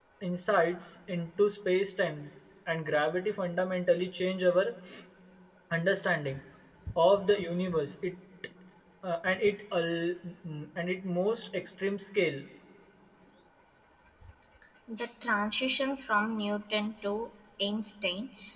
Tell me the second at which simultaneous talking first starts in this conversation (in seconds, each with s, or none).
none